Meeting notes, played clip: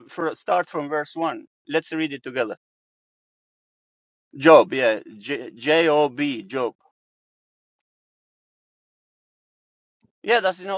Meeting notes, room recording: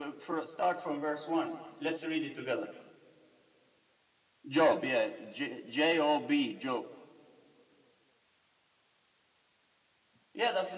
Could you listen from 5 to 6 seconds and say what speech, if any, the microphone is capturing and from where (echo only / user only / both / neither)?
echo only